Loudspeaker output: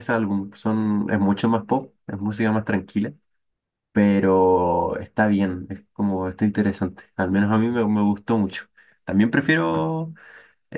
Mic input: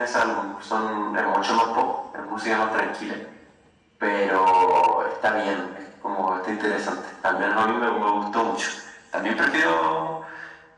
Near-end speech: none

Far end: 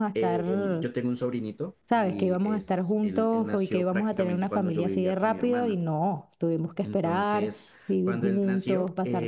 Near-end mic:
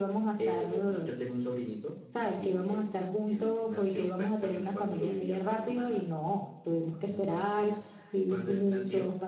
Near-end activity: none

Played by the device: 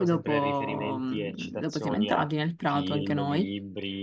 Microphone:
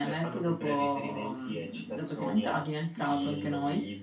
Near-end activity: none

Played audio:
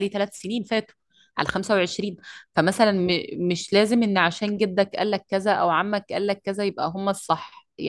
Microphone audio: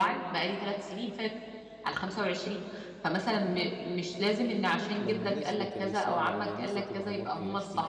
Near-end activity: present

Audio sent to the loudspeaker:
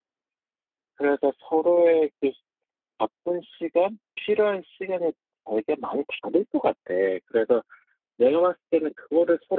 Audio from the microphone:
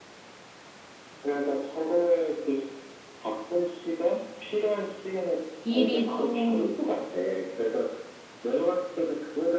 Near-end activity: present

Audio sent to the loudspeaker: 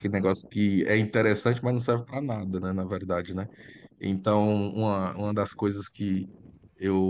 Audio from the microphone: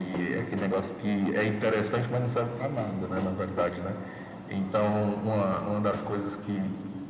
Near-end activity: none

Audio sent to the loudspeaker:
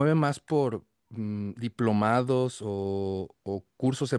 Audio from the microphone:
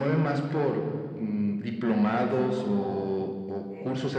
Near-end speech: present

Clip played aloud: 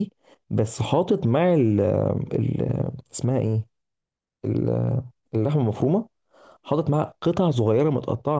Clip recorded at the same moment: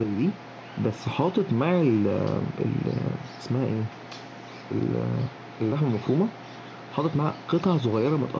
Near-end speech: none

